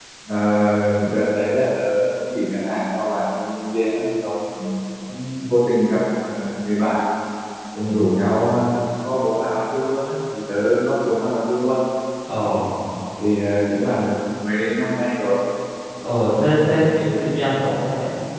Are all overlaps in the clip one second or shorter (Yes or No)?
Yes